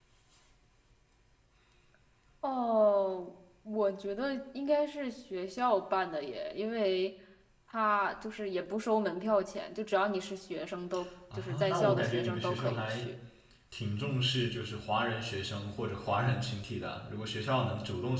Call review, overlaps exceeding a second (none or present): present